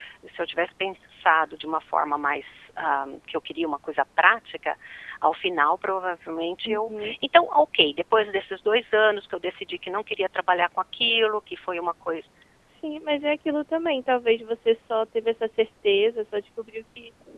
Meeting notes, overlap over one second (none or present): none